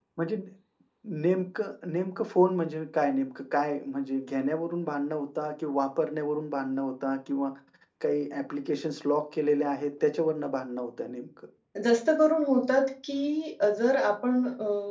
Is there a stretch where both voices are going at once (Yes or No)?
No